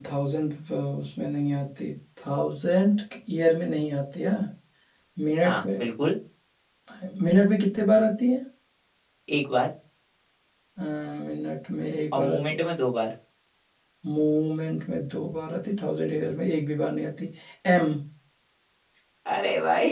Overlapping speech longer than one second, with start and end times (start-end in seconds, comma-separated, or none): none